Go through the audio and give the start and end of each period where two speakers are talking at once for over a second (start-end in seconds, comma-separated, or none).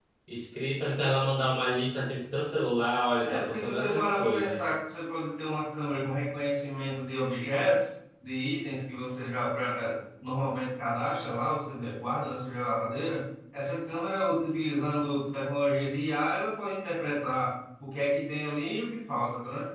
3.3-4.6